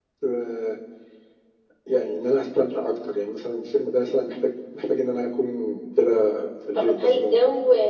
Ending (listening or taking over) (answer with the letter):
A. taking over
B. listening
A